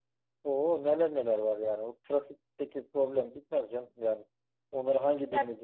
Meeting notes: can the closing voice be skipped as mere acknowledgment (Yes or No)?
Yes